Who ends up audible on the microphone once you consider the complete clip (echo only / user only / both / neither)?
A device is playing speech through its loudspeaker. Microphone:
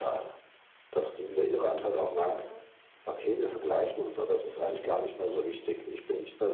both